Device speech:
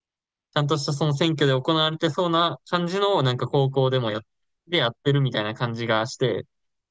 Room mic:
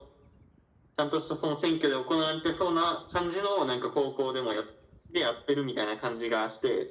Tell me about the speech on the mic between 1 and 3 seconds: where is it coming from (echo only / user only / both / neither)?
echo only